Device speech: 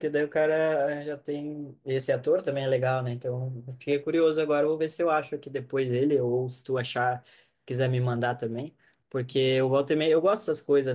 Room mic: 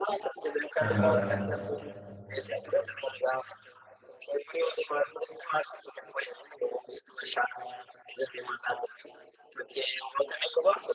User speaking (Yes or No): Yes